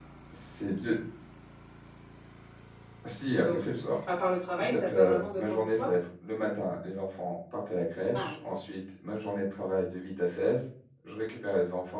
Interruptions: present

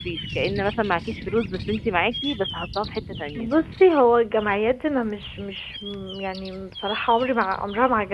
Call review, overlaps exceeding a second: none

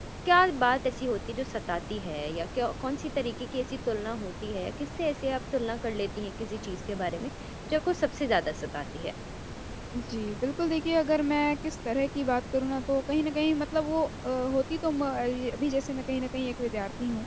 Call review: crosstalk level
none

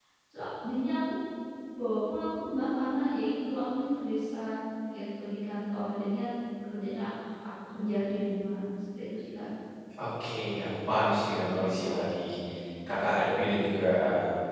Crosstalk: none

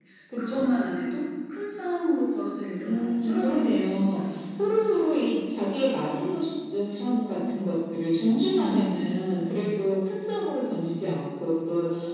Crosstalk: present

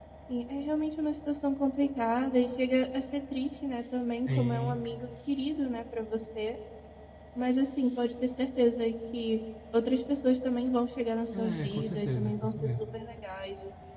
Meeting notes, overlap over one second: present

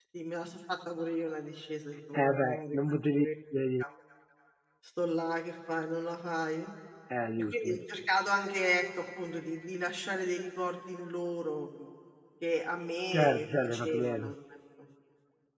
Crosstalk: present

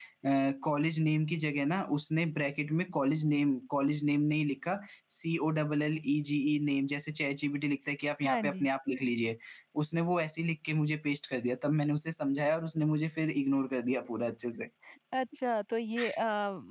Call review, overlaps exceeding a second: none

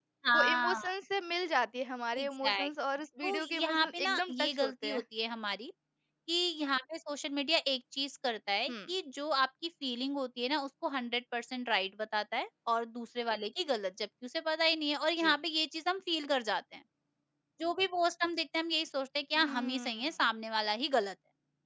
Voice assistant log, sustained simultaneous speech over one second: present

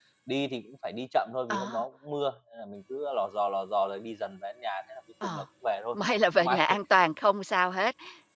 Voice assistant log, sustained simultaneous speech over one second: none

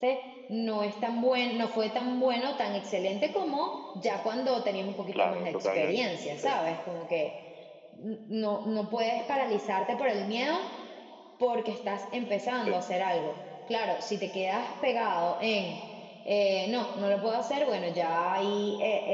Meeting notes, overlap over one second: present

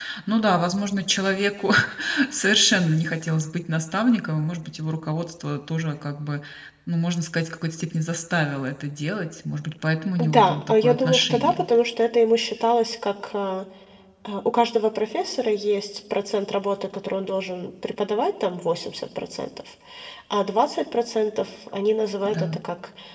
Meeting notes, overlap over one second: present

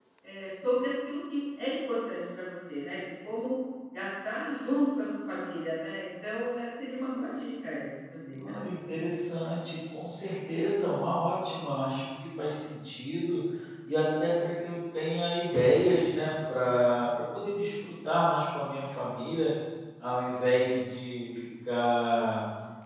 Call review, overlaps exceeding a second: none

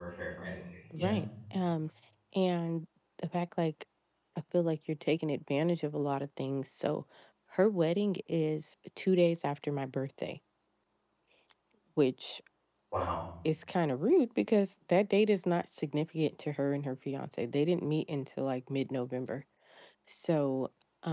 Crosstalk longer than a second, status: none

